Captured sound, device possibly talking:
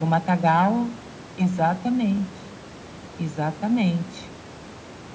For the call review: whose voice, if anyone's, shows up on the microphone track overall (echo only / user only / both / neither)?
echo only